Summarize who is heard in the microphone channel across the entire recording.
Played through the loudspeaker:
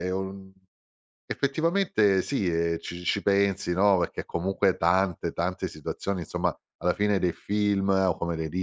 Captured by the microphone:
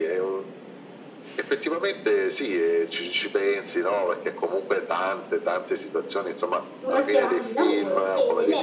both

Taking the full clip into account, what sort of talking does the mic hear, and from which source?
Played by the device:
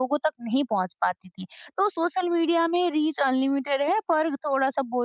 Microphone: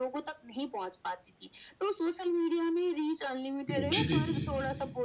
both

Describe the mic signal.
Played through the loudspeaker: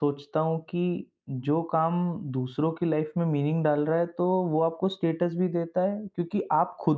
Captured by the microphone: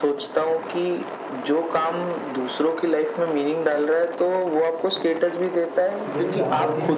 both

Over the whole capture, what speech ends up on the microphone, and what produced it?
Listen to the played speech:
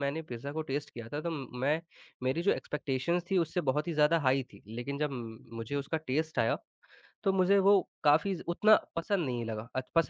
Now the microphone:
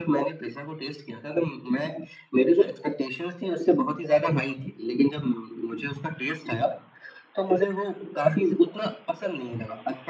echo only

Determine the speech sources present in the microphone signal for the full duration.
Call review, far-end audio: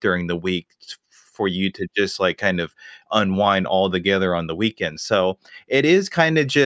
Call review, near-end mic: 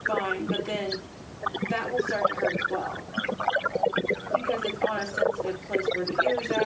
both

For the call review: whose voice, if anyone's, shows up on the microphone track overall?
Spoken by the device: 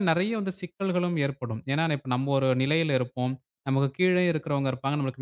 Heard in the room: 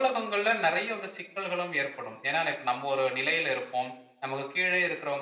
echo only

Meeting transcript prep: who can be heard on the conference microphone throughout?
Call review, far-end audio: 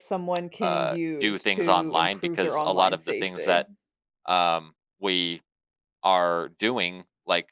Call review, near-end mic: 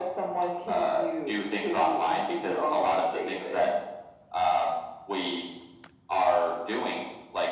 echo only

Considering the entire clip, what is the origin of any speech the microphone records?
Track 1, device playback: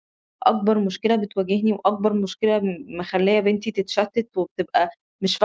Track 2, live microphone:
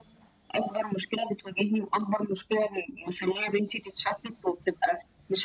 echo only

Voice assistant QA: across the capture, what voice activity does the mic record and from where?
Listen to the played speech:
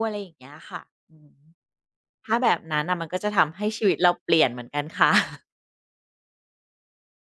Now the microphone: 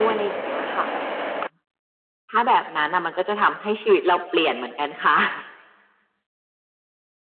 echo only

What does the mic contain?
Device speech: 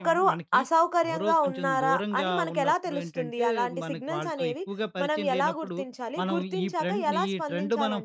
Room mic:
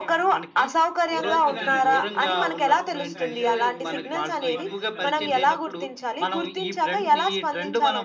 both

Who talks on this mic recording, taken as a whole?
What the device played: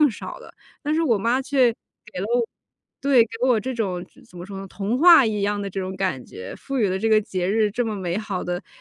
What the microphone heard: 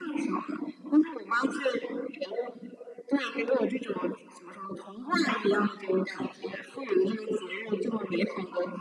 echo only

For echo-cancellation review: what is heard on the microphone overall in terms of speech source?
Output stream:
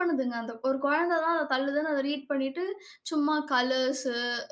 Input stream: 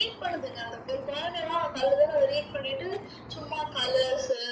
echo only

